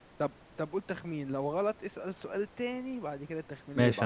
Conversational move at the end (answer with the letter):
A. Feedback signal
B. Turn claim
B